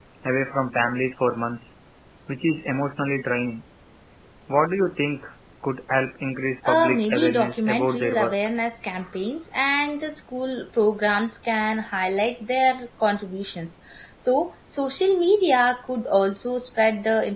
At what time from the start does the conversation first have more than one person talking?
6.6 s

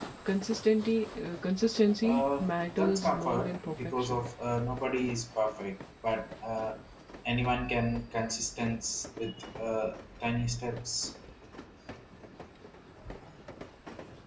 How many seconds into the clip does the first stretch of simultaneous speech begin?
2.0 s

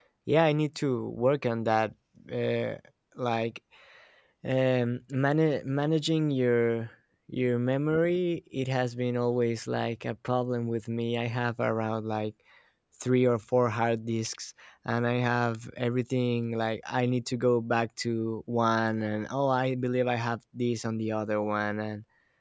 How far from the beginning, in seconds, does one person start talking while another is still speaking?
none

